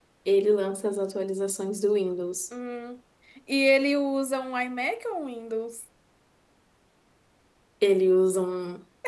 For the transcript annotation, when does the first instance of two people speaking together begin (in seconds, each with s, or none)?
none